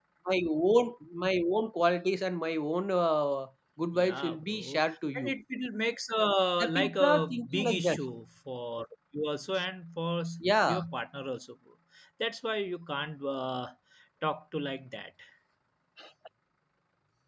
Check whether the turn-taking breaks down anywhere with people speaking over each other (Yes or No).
Yes